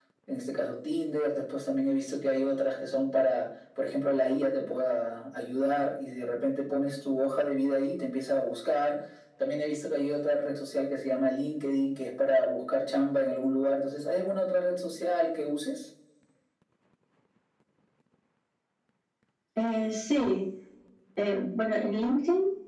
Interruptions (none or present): none